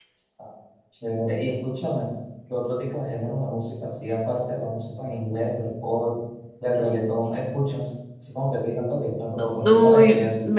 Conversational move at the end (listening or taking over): taking over